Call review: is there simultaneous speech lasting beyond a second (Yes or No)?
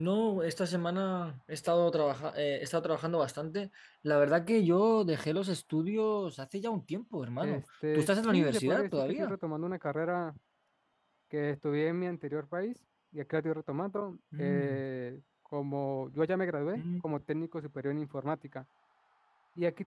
Yes